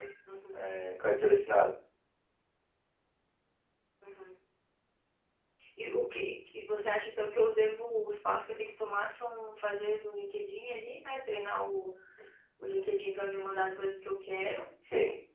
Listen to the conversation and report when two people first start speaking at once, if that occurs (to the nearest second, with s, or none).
none